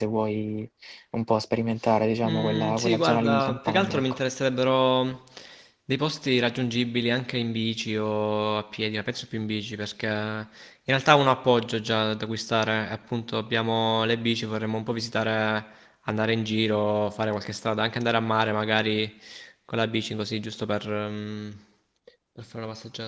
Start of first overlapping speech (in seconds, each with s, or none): 2.2 s